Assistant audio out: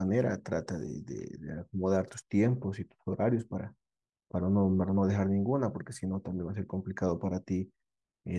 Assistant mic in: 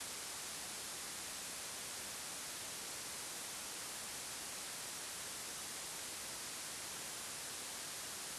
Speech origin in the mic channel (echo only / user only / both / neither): neither